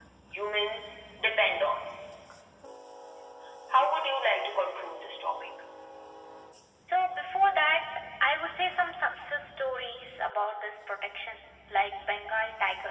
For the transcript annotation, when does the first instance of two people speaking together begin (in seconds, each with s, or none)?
none